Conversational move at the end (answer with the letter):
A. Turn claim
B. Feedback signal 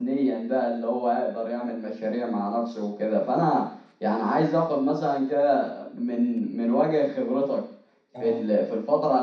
B